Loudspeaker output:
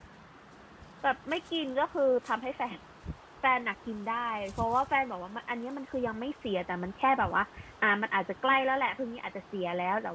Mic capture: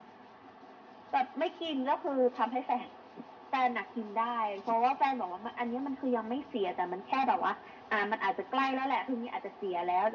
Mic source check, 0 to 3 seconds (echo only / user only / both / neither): echo only